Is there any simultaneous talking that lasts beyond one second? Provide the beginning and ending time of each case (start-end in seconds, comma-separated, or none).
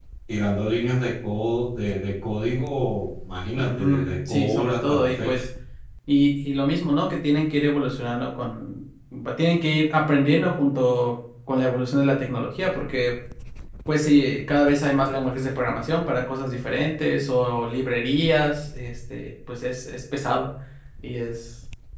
3.6-5.4